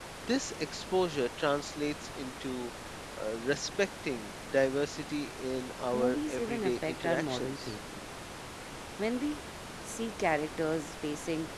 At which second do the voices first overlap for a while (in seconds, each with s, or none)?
5.9 s